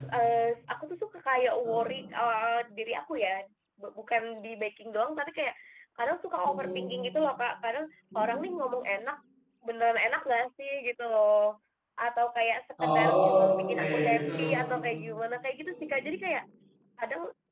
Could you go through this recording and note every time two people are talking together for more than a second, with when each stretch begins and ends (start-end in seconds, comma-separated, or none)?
12.8-14.2